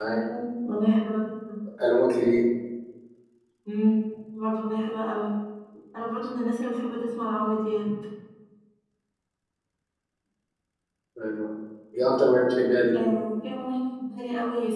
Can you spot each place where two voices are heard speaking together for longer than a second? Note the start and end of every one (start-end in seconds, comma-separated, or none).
none